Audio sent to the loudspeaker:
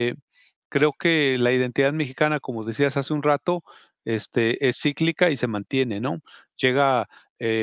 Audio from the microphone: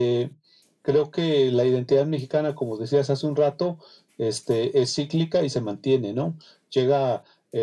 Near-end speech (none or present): none